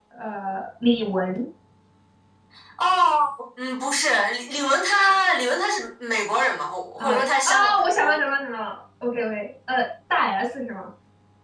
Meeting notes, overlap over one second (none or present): present